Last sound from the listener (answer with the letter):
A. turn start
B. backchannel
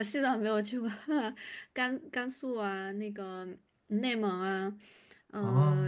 B